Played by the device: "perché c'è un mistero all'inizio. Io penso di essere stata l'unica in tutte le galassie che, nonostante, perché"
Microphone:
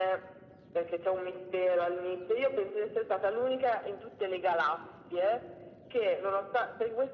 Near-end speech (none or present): none